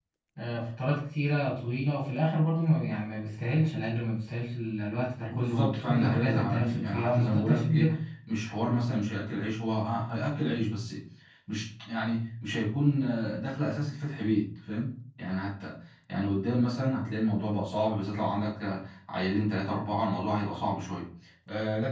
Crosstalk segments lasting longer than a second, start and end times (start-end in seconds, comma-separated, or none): 5.3-7.9